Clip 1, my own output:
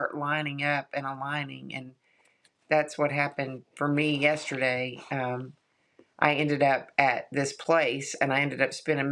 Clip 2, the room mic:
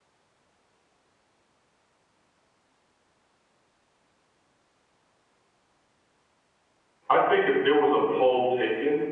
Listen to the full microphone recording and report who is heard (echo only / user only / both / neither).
user only